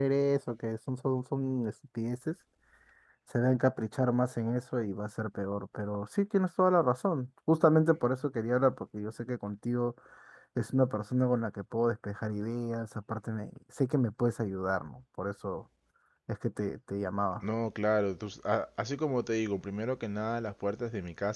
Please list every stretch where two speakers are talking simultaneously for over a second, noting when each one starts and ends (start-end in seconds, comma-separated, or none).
none